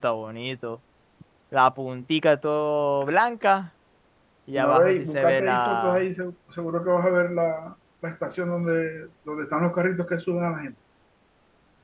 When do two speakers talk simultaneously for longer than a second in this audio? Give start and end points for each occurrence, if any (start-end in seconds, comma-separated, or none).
4.5-6.0